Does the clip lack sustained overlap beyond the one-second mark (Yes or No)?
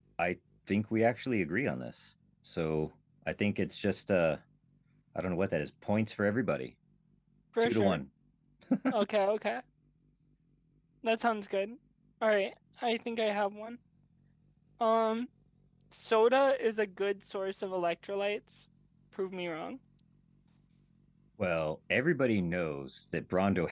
Yes